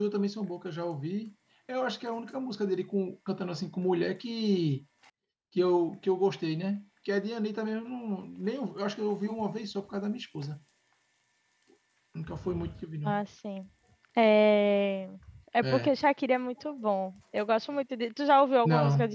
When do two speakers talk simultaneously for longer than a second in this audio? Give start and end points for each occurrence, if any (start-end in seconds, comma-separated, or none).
none